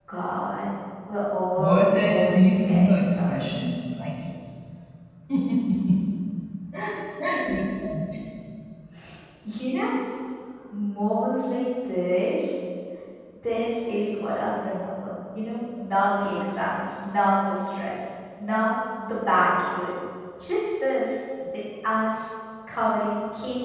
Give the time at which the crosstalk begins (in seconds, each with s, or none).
1.6 s